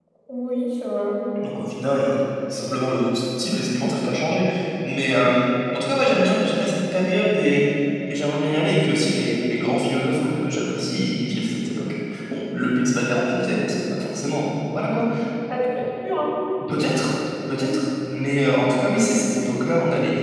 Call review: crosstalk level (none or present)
none